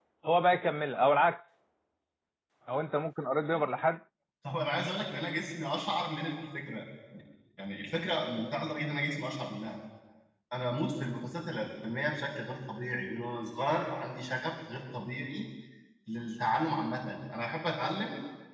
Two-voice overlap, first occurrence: none

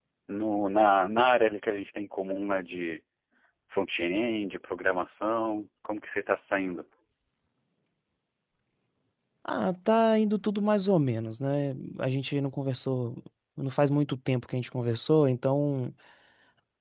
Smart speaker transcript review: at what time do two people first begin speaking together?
none

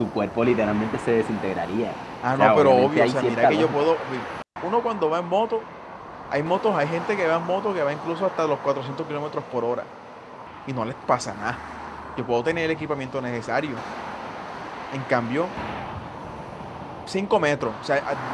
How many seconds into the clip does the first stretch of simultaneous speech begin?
2.2 s

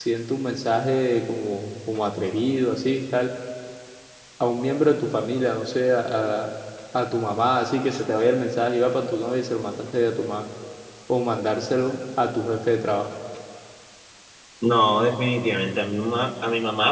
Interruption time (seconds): none

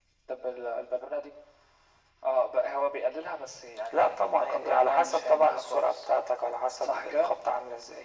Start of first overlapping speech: 3.9 s

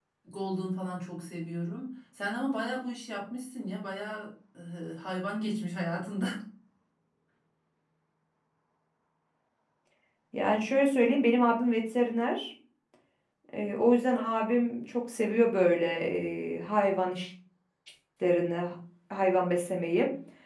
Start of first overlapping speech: none

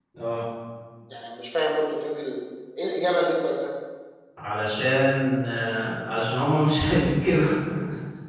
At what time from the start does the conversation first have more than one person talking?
none

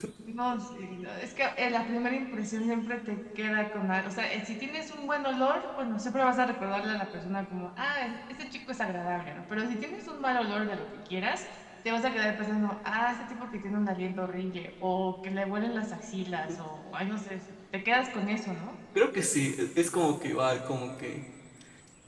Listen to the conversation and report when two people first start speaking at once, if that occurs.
none

